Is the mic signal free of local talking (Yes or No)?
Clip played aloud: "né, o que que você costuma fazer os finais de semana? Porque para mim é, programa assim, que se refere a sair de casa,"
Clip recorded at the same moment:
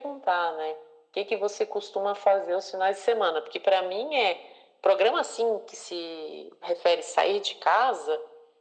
Yes